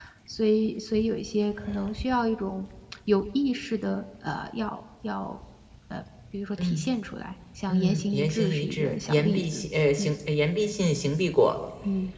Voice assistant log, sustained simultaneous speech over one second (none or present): present